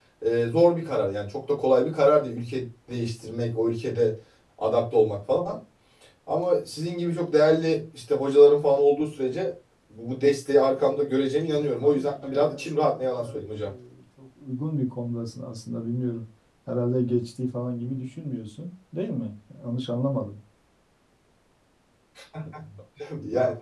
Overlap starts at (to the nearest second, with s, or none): 12 s